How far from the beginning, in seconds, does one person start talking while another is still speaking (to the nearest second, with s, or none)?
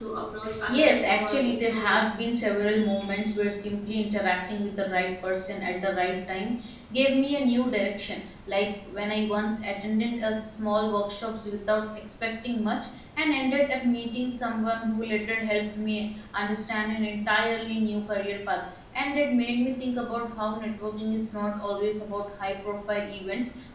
1 s